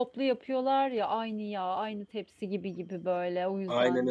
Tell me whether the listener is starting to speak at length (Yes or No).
Yes